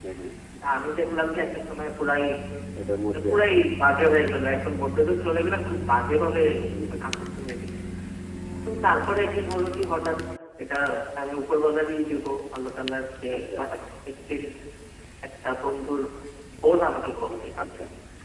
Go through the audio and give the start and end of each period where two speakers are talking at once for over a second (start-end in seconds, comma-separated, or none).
none